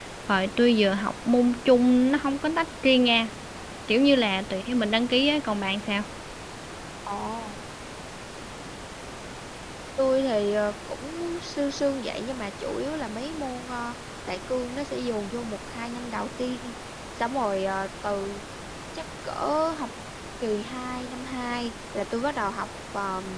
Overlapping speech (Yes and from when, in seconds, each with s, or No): No